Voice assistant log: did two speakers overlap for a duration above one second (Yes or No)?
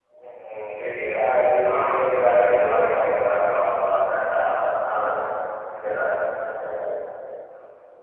Yes